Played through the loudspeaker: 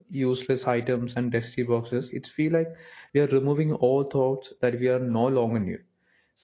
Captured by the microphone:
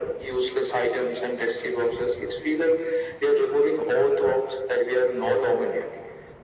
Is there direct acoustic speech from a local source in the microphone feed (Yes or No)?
No